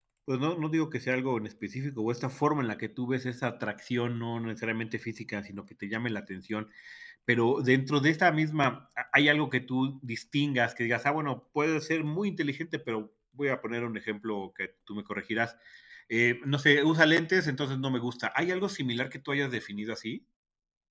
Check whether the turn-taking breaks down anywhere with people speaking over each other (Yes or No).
No